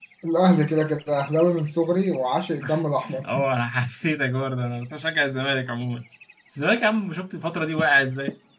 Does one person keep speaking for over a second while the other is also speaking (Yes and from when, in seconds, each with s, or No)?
No